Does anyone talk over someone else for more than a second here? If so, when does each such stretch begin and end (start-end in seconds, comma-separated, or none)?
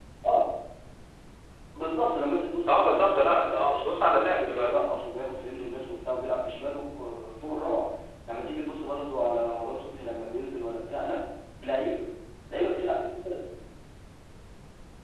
2.7-4.7